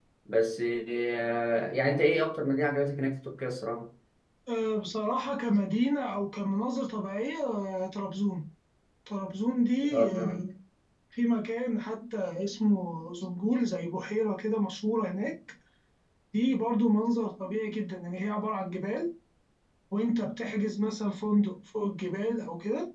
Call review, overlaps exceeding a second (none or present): none